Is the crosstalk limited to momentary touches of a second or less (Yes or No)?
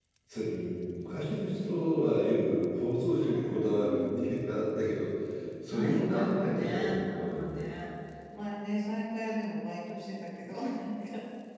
No